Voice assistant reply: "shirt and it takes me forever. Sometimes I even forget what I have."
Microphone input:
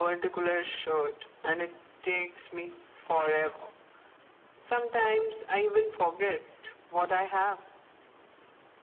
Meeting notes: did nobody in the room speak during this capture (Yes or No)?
Yes